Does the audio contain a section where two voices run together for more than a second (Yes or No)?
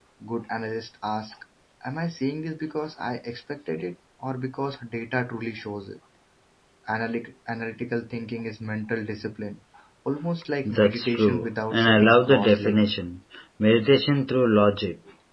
Yes